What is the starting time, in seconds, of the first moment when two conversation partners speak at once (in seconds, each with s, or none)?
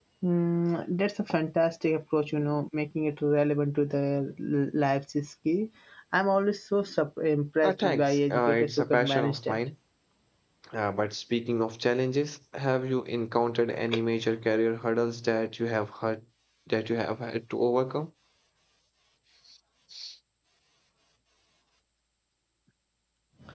7.6 s